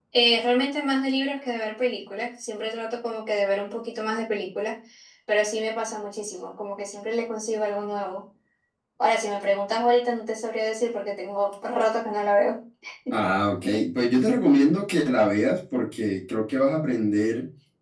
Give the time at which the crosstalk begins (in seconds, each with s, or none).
none